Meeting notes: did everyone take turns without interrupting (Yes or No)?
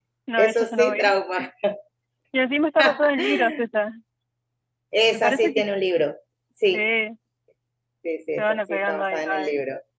No